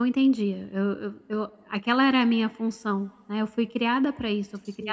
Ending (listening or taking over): listening